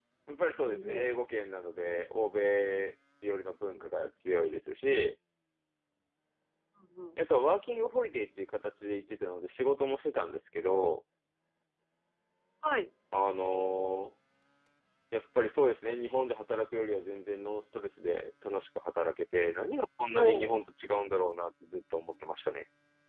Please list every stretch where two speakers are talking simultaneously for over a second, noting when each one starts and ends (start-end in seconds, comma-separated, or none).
none